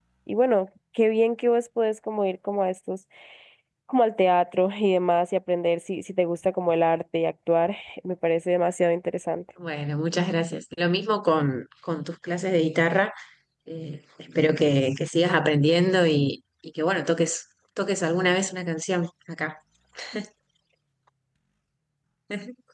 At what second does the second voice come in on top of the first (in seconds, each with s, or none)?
none